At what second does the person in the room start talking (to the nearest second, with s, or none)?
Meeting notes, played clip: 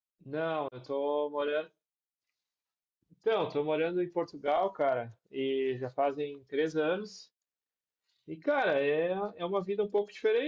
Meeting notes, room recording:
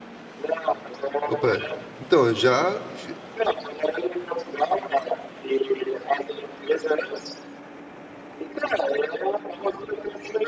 1 s